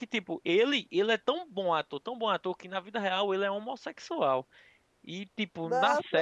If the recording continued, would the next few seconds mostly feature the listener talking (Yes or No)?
No